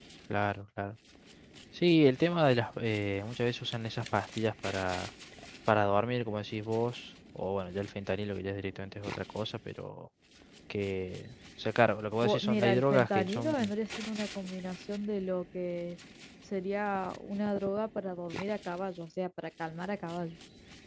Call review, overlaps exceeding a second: present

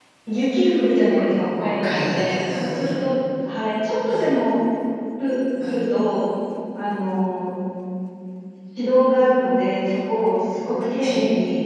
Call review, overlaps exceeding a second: present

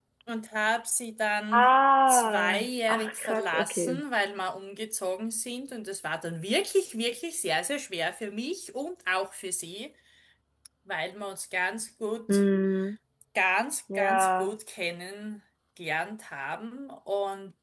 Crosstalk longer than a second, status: present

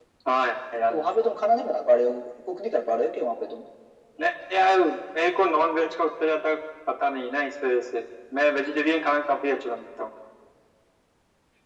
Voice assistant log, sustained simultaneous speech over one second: none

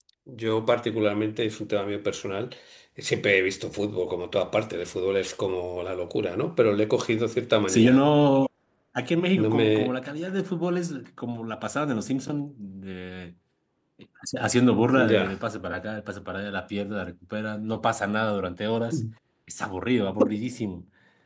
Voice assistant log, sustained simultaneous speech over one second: none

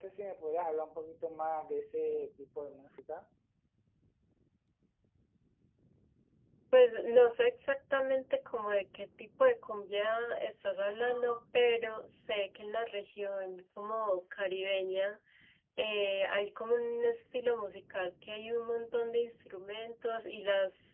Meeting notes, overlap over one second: none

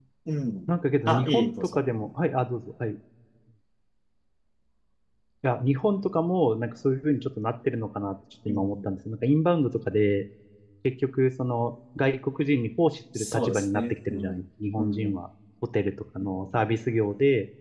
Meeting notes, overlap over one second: present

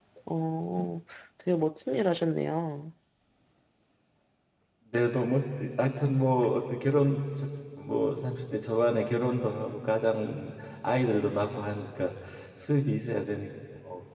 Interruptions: none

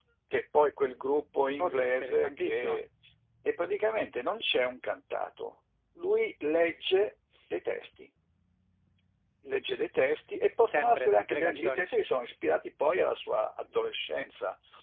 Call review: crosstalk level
present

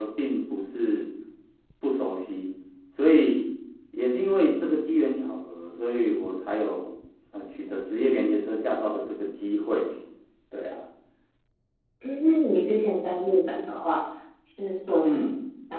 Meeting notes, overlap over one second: none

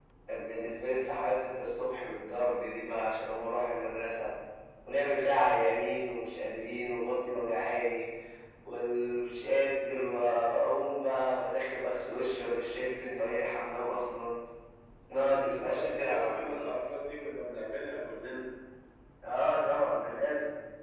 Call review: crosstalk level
present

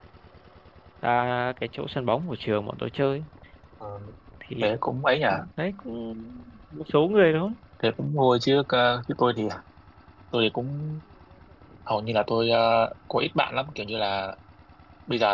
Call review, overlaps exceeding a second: none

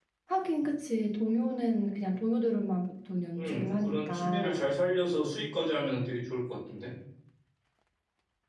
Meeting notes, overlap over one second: present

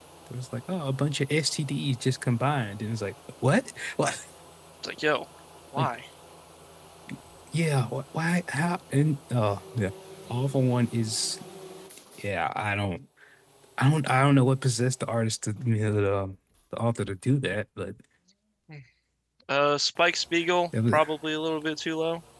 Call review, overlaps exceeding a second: none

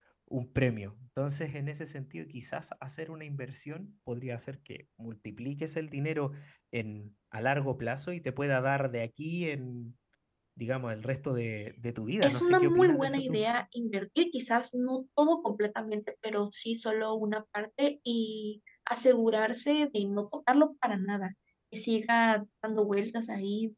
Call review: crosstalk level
present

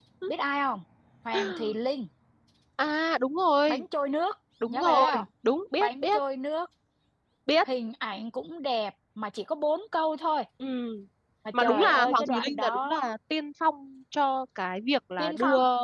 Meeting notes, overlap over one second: present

